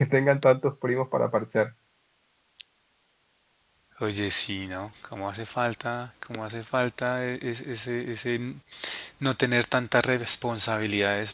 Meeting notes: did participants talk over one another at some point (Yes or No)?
No